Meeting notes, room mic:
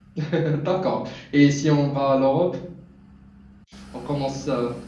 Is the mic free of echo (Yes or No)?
Yes